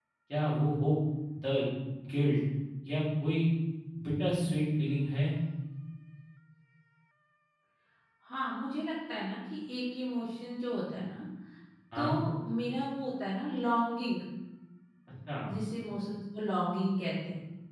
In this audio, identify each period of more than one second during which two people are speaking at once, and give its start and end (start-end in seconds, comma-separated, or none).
none